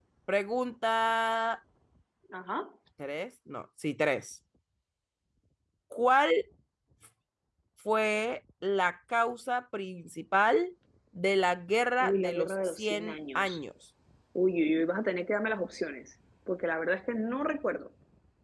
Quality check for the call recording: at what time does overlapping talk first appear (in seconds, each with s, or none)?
12.0 s